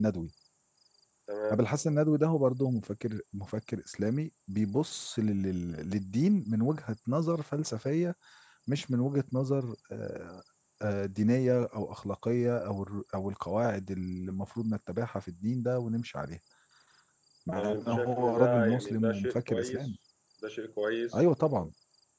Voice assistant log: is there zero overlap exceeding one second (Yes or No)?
No